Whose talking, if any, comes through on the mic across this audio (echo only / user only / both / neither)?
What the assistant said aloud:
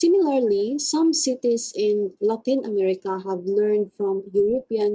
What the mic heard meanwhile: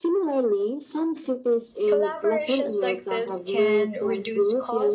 both